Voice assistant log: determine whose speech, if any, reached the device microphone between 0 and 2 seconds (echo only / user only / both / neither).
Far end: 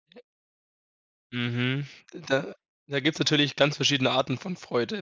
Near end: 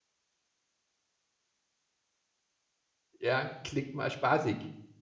neither